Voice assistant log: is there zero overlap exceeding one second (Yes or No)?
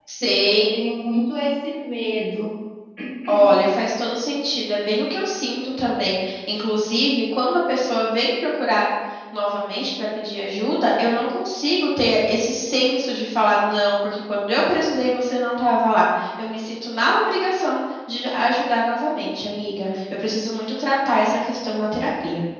Yes